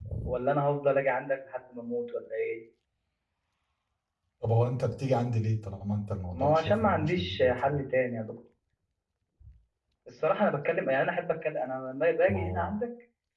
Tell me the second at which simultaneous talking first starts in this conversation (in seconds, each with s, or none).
6.3 s